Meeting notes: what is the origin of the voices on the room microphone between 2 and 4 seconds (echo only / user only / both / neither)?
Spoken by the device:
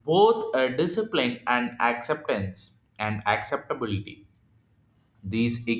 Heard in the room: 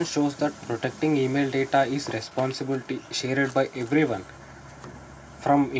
user only